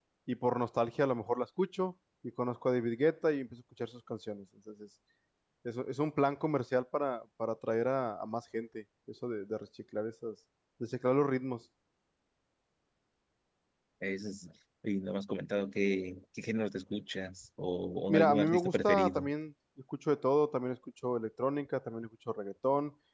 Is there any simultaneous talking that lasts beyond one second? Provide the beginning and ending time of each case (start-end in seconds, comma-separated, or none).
18.1-19.3